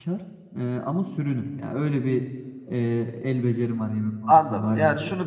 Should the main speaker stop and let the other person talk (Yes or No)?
Yes